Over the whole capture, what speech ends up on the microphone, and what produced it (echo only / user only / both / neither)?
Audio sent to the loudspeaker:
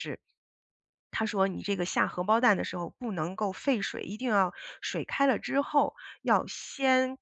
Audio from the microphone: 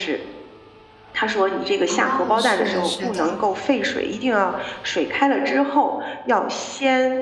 both